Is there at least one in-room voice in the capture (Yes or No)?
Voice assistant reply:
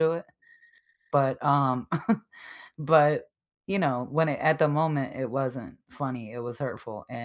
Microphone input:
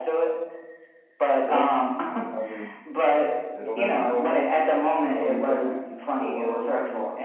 Yes